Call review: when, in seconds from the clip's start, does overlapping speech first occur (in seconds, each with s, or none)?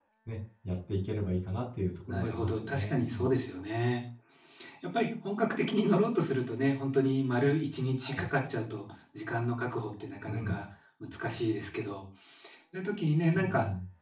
2.1 s